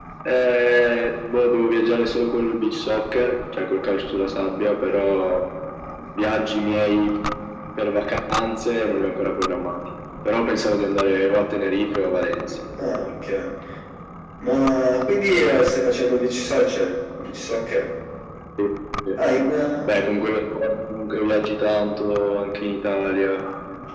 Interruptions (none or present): none